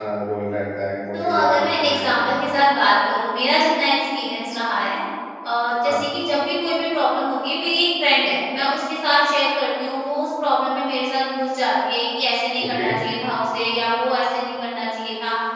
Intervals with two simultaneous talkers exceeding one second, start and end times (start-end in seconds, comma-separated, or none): 1.1-2.4